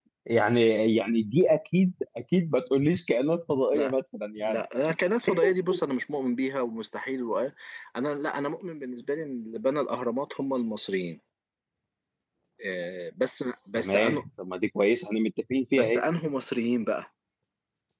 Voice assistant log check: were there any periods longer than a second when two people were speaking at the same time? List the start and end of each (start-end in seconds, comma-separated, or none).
none